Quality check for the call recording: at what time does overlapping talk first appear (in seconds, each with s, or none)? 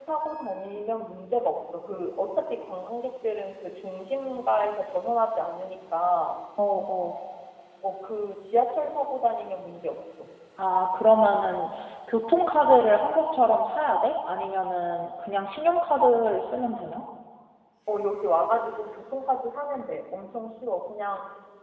none